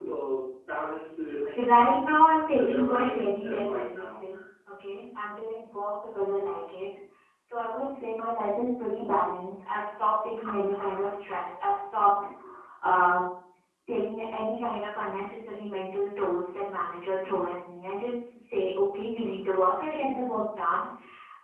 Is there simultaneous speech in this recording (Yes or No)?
Yes